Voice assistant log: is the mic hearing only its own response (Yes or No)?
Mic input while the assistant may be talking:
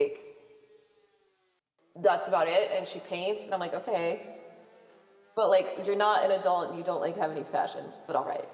No